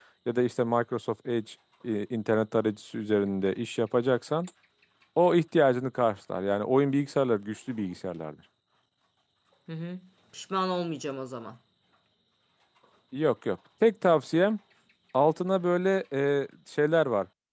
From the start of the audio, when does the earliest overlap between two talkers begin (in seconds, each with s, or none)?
none